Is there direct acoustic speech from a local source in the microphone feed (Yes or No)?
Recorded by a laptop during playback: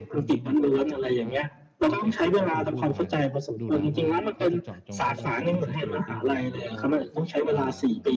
Yes